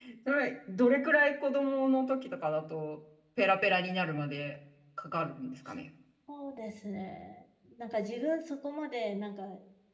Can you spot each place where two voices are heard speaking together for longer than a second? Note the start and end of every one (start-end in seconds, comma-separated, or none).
none